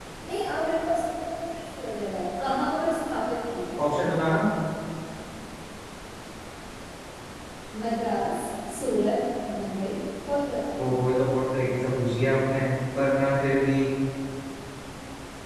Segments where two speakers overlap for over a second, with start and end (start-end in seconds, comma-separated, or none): none